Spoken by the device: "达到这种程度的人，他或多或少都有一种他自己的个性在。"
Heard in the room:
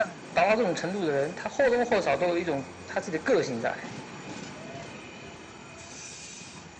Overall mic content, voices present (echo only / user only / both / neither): echo only